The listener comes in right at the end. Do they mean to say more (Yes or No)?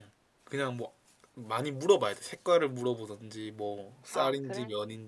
No